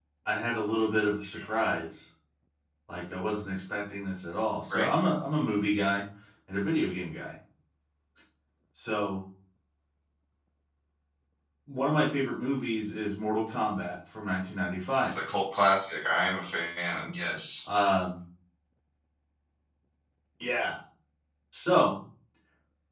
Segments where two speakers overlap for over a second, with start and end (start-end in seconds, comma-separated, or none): none